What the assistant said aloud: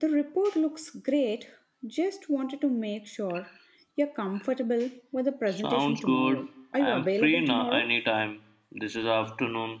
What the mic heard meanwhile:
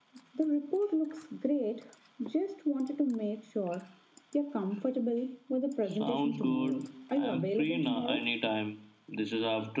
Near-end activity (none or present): none